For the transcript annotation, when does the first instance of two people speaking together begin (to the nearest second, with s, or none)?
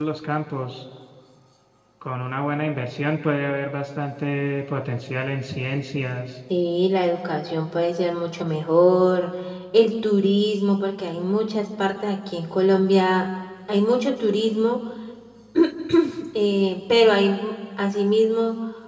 none